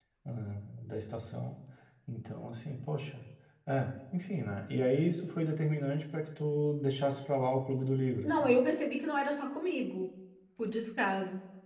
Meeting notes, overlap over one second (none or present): none